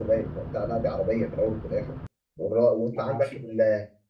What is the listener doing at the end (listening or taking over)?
listening